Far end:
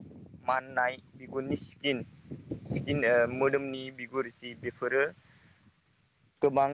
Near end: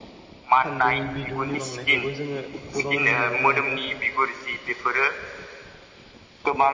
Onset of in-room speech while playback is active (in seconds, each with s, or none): 0.6 s